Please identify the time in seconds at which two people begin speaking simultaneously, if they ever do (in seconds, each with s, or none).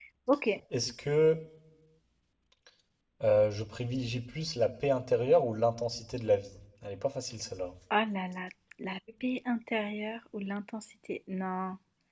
none